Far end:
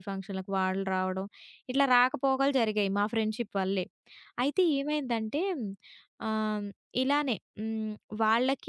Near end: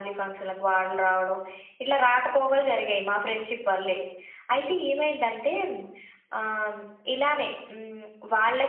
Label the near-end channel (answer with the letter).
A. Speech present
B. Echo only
B